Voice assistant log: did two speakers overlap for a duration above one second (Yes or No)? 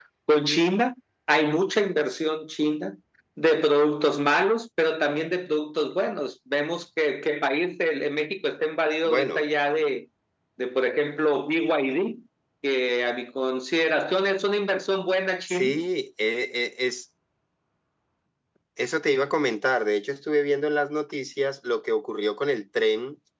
No